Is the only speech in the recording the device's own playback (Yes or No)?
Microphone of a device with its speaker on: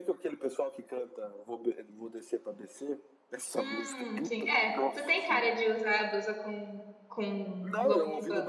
No